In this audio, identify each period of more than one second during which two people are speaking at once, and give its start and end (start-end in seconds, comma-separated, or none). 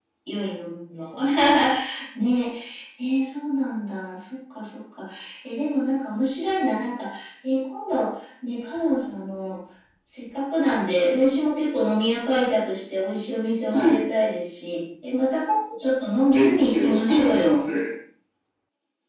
16.2-17.6